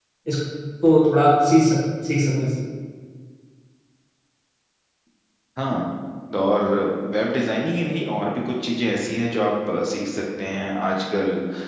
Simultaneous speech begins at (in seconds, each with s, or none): none